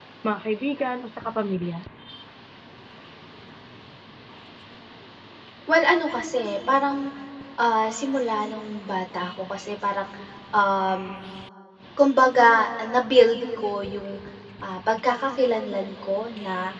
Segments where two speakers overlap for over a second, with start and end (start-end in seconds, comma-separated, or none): none